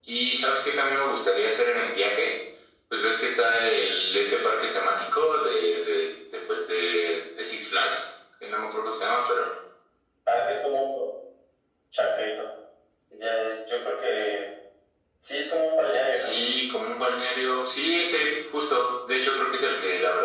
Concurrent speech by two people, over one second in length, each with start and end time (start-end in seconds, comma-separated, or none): none